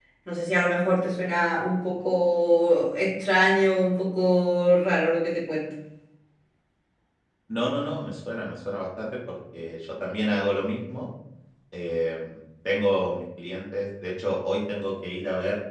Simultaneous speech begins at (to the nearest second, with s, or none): none